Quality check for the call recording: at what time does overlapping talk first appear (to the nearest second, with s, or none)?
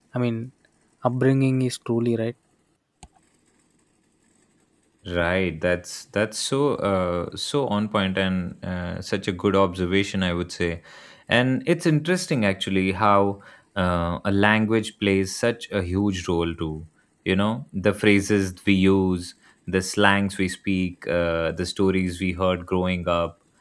none